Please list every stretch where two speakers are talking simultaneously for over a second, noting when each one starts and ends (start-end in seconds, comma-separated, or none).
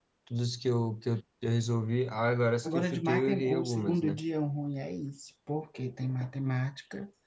2.6-4.2